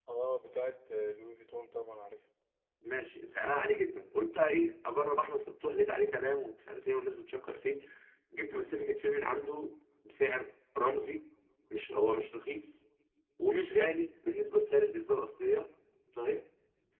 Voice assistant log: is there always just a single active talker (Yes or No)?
Yes